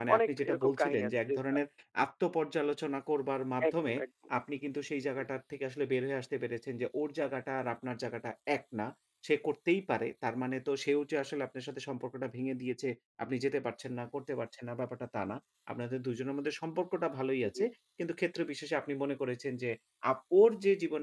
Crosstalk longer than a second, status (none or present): present